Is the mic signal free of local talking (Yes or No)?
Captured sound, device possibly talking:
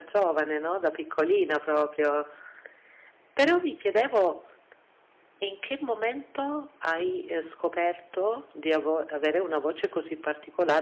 No